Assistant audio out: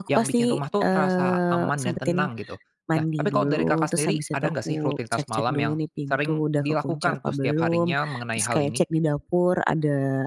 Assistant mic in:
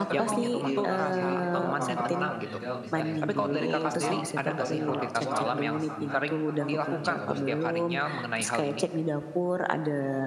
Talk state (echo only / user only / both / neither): both